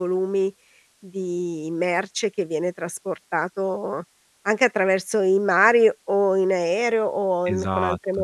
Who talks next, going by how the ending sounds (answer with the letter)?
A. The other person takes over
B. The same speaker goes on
A